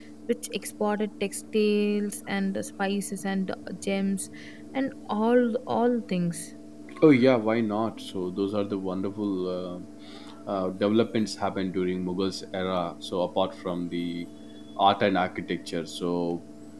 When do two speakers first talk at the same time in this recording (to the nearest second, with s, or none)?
none